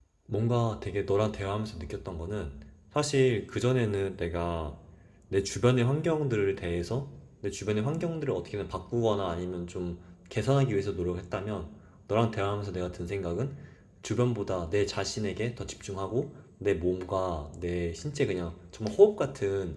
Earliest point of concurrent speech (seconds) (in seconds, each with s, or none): none